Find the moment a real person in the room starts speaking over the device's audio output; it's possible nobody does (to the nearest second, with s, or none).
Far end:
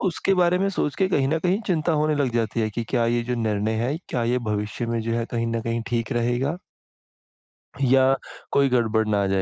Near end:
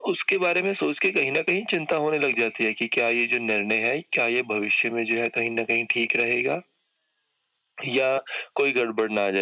none